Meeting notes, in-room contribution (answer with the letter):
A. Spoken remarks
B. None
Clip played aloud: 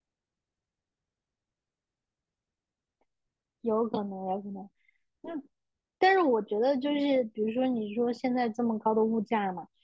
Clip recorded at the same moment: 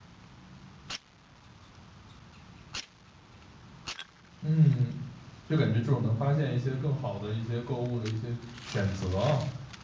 A